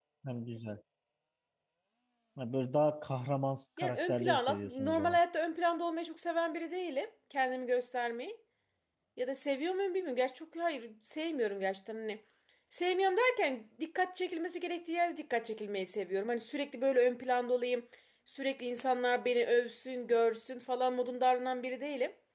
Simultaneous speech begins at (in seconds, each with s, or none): 3.8 s